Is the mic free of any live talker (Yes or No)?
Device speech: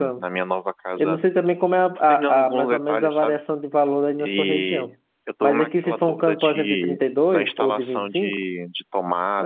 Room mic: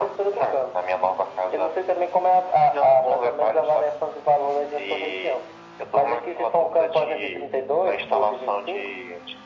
Yes